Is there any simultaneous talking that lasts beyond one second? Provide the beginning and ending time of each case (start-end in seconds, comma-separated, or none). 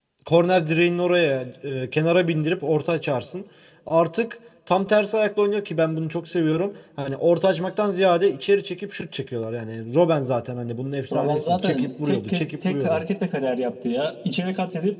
11.1-13.0